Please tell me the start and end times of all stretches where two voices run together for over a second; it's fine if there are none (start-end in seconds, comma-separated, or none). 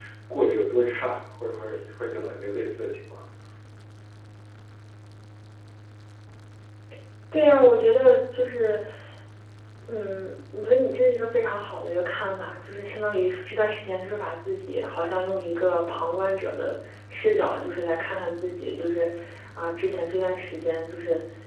none